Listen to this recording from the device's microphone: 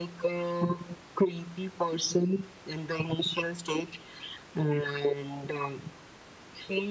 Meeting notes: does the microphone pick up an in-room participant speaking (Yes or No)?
No